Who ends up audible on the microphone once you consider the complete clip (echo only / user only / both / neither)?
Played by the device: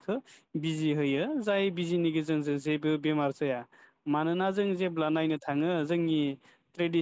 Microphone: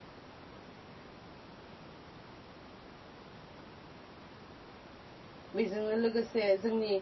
user only